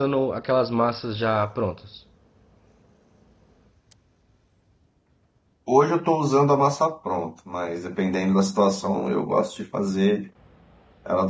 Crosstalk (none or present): none